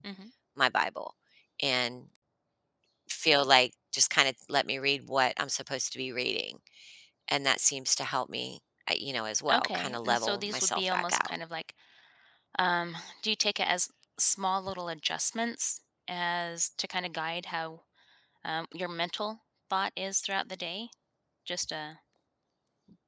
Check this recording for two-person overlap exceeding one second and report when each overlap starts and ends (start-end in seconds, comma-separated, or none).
9.5-11.3